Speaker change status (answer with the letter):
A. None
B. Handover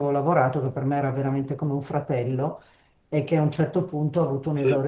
A